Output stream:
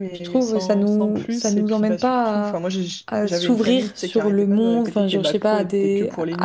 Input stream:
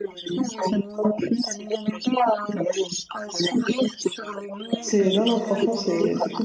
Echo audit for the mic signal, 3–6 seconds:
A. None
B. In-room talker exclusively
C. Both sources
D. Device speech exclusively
C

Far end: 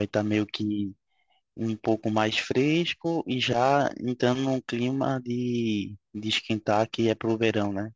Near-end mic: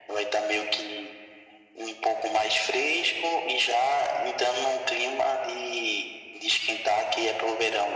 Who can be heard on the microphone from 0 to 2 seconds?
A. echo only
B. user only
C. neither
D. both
A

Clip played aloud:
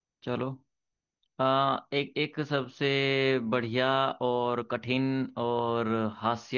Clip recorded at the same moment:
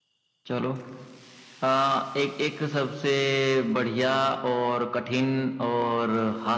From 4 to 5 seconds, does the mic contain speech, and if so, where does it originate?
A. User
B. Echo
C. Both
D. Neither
B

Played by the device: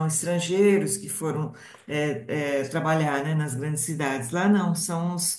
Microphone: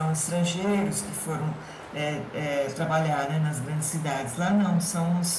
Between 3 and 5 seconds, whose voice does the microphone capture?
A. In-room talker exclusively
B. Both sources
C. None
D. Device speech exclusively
D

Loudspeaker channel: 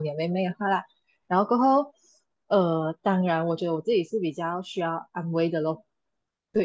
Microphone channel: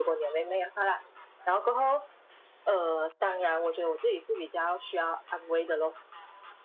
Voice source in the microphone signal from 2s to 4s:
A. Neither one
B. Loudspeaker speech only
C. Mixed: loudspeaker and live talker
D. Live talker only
B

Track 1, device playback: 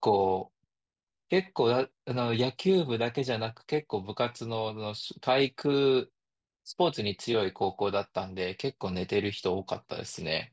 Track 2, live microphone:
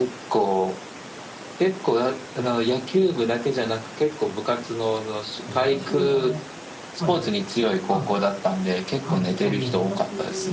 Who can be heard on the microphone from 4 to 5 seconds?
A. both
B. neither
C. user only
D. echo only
D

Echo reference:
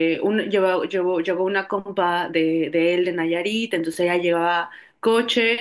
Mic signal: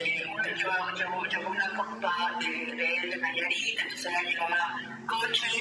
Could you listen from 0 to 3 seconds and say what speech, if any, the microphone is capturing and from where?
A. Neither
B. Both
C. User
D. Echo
D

